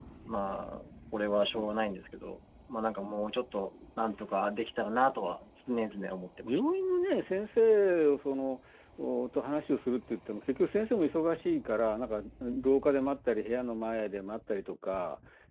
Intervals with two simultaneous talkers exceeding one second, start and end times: none

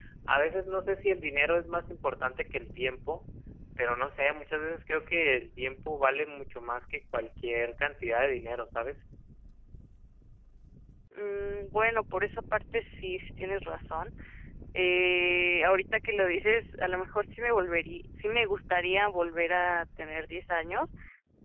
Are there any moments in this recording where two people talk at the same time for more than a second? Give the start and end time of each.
none

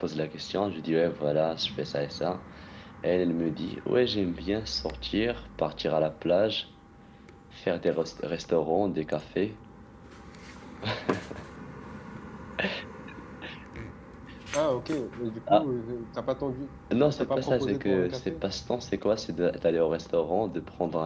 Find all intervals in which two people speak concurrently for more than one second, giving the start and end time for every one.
17.0-18.4

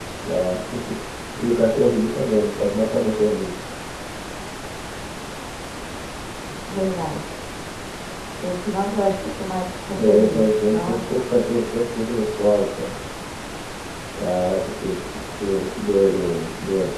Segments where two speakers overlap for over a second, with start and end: 10.0-11.2

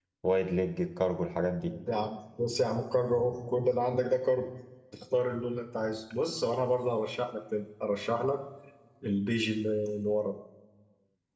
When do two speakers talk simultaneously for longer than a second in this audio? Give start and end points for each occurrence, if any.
none

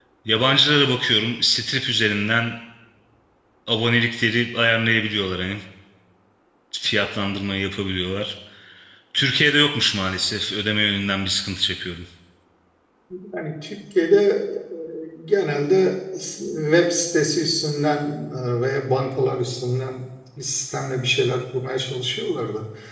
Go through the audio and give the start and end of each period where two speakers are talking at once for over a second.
none

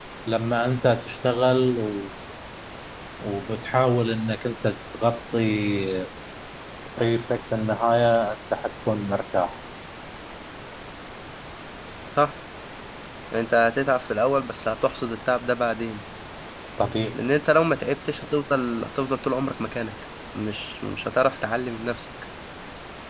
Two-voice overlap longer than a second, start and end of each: none

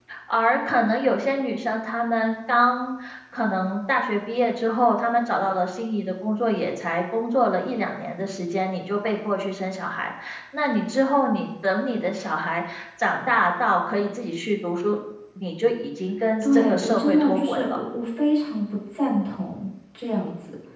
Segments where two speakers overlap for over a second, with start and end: 16.4-17.8

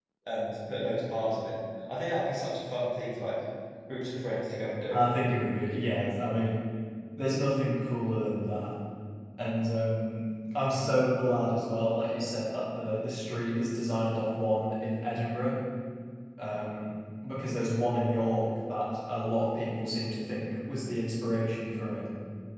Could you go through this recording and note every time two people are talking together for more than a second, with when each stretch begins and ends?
none

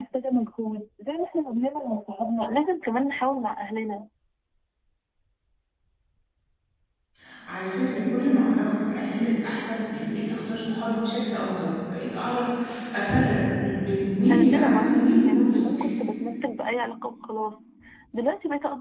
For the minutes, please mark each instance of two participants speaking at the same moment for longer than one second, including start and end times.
14.3-15.9

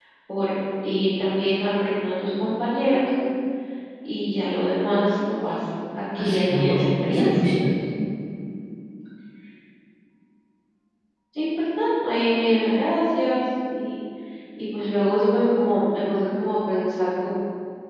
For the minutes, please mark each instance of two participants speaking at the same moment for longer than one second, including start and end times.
6.2-7.5

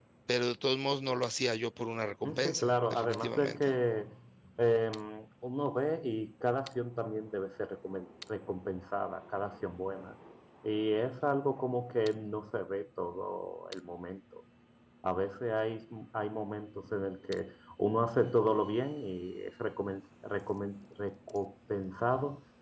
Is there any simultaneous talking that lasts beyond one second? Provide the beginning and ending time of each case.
2.2-3.7

